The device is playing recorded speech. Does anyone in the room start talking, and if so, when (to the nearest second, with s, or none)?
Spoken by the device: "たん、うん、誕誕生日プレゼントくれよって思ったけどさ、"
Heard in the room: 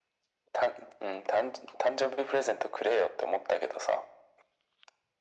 none